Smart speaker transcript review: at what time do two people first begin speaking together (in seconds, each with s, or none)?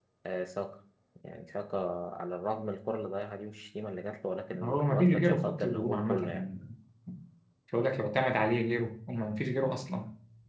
4.5 s